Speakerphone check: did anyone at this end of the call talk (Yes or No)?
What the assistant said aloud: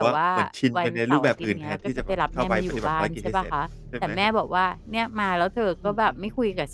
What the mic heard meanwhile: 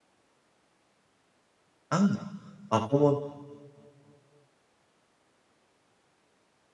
Yes